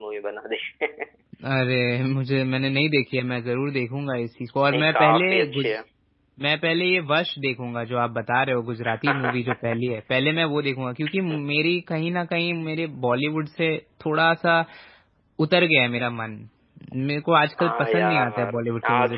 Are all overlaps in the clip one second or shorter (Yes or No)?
No